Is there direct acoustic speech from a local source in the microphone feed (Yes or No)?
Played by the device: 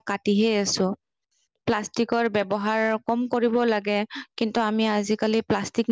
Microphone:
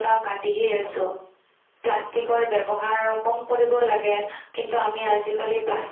No